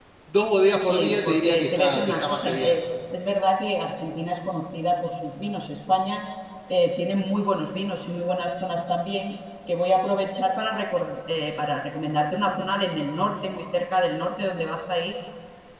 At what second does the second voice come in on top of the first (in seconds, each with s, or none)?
0.9 s